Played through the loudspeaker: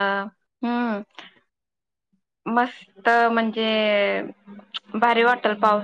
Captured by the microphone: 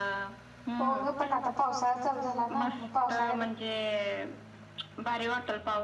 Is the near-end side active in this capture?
Yes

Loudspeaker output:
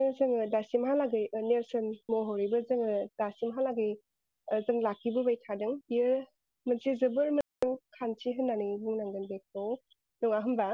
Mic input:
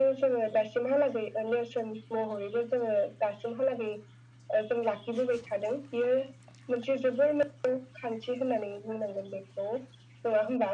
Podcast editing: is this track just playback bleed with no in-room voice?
Yes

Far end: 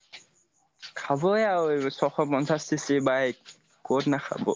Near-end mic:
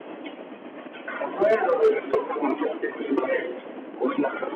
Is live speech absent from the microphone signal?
Yes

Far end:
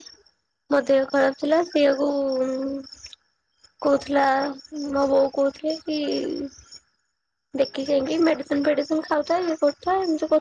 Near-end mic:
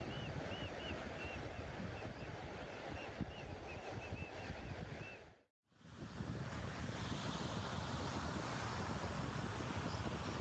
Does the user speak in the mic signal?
No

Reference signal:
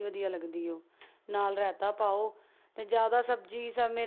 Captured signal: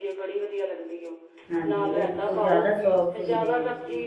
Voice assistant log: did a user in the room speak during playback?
Yes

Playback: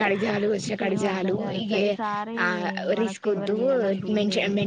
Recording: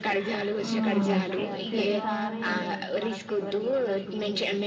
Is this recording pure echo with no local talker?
No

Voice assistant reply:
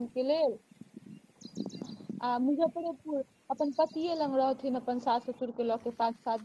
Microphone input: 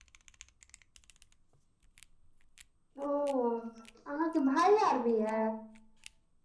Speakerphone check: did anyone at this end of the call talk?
Yes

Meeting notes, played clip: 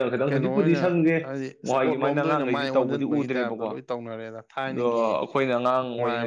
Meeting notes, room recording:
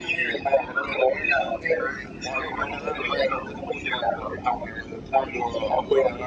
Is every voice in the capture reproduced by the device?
Yes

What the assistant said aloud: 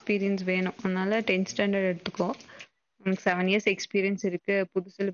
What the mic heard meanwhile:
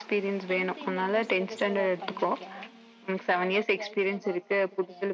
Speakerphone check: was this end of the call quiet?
No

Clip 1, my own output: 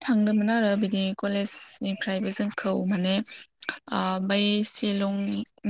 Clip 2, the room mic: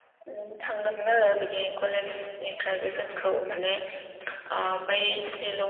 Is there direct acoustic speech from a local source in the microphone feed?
No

